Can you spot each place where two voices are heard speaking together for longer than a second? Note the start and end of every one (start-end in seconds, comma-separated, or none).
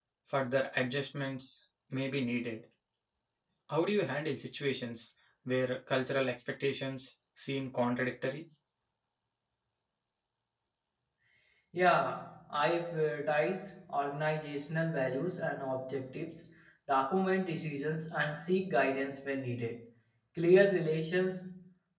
none